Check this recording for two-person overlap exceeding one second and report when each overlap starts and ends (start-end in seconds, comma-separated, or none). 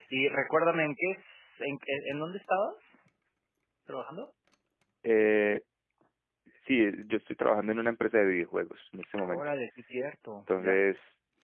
none